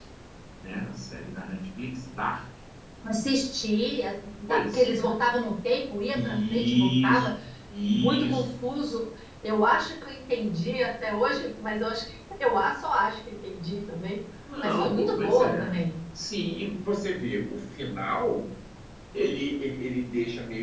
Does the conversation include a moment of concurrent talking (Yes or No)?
Yes